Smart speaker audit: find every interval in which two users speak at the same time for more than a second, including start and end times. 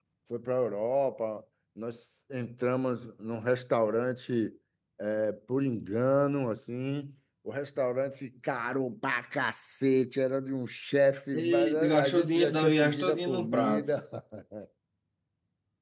11.4-13.9

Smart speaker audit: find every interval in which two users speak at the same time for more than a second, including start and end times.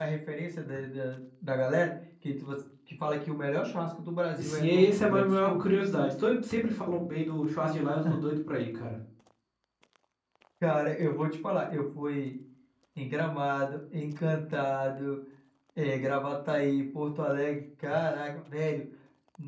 4.4-5.6

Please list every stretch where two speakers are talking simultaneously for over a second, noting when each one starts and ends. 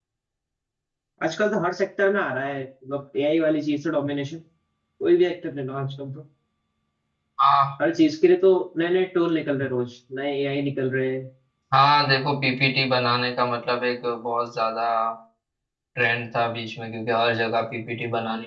none

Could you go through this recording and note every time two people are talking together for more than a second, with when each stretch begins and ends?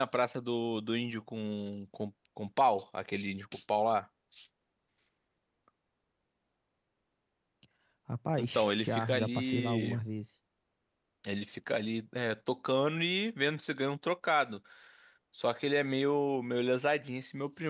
8.4-10.0

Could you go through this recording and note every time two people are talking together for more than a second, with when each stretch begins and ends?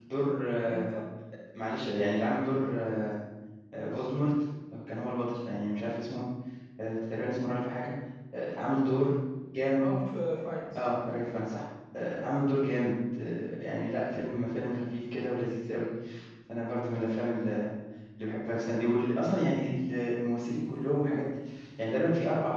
none

